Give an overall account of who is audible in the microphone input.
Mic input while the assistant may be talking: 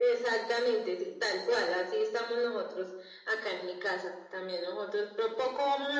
echo only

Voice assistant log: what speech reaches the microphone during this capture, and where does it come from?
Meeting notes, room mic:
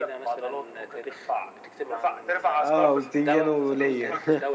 both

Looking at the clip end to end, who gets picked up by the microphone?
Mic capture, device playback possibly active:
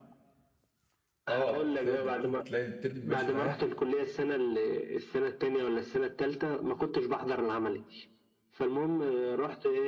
both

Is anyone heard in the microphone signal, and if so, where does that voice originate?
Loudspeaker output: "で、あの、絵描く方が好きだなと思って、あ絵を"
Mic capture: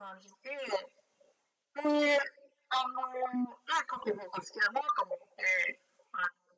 echo only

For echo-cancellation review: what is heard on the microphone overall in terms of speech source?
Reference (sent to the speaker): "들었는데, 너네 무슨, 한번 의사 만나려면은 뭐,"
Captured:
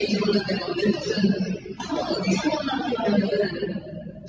echo only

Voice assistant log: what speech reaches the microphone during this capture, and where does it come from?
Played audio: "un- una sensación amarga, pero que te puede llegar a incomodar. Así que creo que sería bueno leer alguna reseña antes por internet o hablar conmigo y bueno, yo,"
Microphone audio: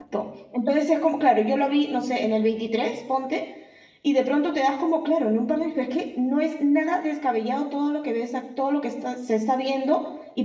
user only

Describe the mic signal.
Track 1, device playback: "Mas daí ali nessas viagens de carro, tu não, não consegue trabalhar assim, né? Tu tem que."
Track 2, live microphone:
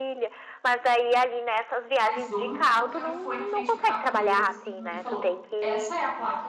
both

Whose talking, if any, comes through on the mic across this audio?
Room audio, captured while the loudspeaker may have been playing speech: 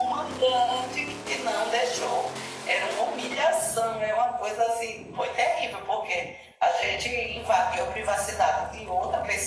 echo only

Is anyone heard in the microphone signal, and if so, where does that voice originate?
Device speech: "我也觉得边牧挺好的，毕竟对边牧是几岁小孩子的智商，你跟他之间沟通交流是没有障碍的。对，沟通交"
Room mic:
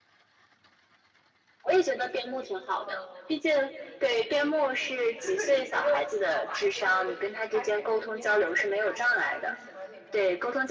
both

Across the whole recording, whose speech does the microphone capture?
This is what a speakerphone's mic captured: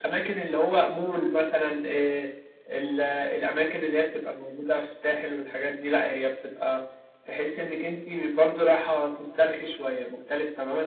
echo only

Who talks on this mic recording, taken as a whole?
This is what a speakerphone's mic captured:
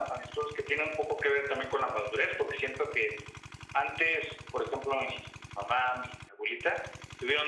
echo only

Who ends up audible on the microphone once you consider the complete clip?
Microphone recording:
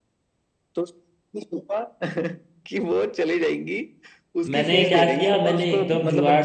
both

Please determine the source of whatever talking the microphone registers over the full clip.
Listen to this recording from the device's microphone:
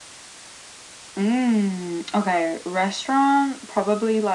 echo only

